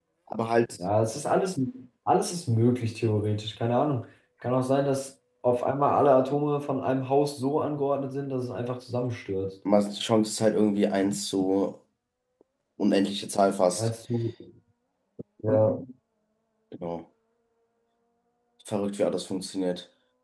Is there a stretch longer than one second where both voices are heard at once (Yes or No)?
No